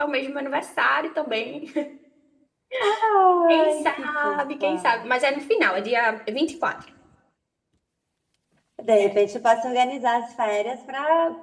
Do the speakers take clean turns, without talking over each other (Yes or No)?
No